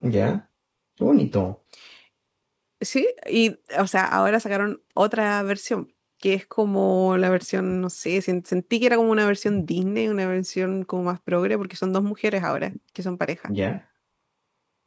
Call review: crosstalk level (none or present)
none